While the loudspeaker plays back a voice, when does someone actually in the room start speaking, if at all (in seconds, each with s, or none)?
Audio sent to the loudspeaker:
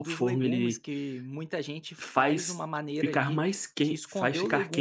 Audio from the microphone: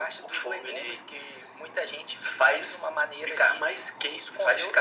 none